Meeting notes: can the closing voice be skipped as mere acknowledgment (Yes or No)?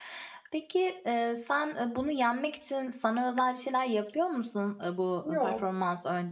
Yes